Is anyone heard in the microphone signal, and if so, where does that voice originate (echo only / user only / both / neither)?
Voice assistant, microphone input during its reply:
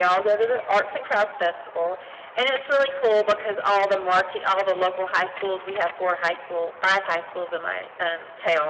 echo only